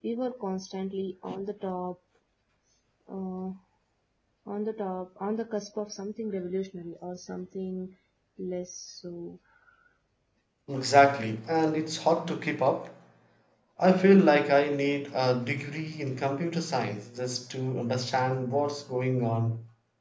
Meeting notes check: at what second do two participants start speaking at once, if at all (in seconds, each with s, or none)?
none